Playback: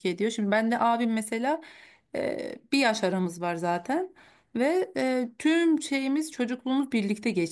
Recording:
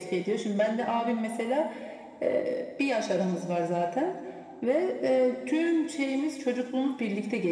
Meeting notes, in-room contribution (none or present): none